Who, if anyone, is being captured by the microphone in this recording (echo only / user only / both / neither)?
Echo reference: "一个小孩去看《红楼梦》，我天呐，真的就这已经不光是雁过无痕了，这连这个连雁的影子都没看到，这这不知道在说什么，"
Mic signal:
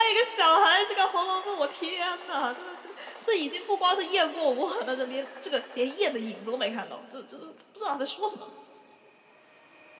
echo only